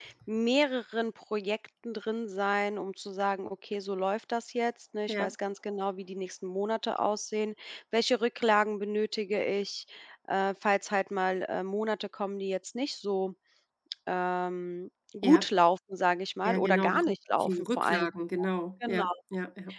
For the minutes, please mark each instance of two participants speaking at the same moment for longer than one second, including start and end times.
16.4-18.1

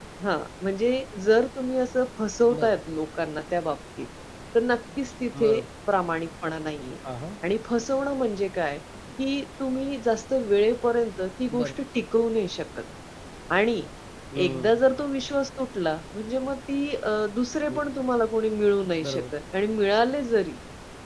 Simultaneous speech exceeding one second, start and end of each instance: none

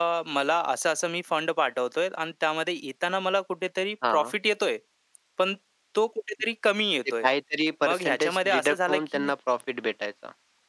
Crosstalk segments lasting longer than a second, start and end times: 7.8-9.3

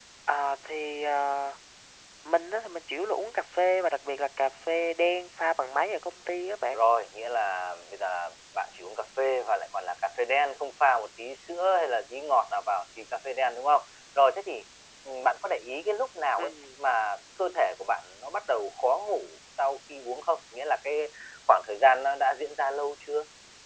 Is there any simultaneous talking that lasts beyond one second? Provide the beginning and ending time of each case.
none

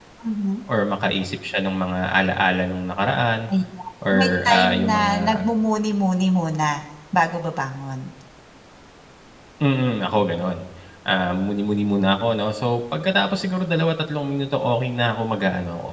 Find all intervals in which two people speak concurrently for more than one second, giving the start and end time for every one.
4.1-5.4

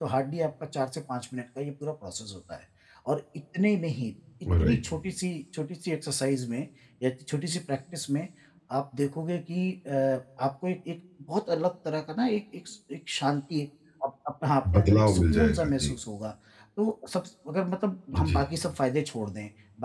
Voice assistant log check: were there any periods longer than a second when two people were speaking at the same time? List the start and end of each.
14.7-15.9

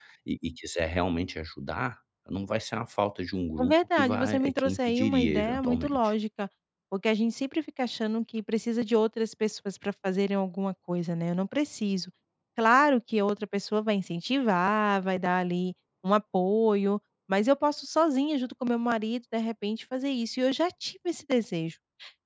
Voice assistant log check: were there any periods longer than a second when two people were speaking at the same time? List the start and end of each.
3.6-6.1

